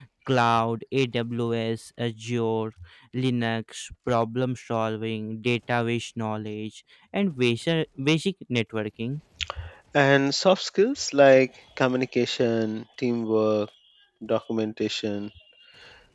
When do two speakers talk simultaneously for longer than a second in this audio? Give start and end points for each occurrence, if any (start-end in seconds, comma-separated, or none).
none